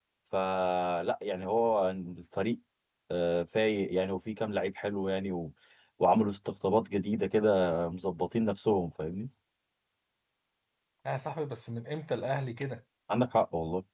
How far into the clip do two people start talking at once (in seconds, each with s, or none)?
none